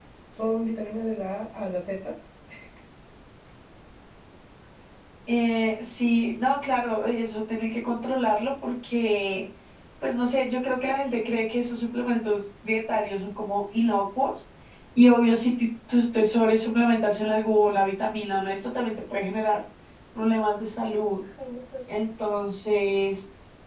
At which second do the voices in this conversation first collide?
none

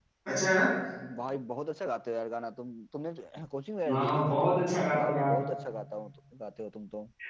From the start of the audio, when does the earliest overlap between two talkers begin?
3.9 s

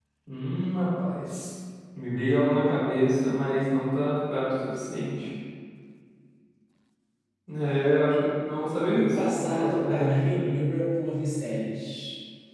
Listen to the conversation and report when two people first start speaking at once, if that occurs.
8.8 s

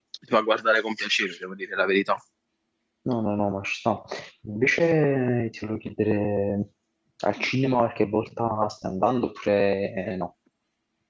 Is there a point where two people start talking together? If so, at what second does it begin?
none

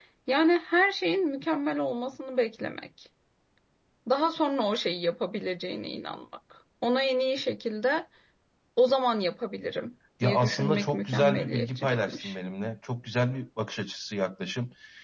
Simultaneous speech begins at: 10.2 s

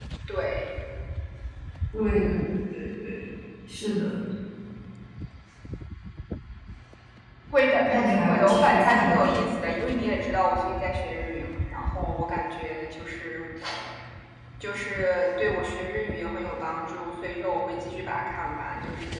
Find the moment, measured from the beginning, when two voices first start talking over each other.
7.9 s

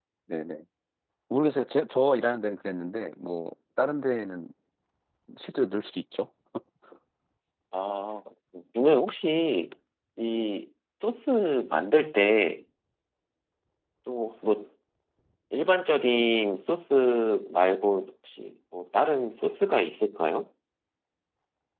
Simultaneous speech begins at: none

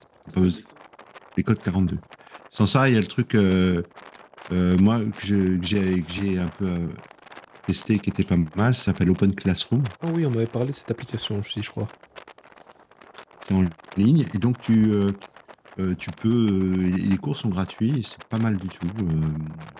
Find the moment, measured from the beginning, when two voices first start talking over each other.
none

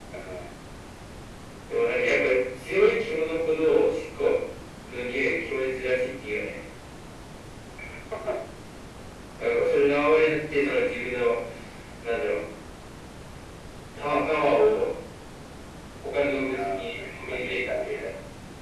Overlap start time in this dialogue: 16.5 s

